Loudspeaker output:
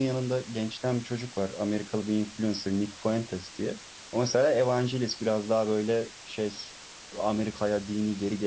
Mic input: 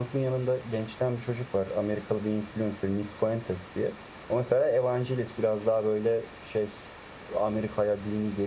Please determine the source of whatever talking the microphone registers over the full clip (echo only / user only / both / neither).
echo only